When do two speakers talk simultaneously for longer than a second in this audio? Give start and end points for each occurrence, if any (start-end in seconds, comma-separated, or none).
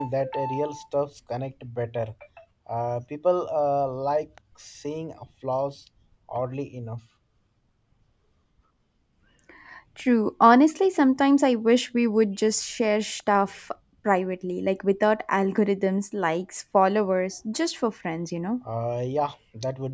none